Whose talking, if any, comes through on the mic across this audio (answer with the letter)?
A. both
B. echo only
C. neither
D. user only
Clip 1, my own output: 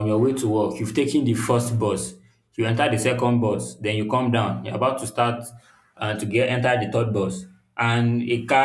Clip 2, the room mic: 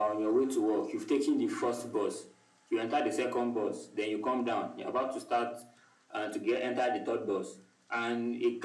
B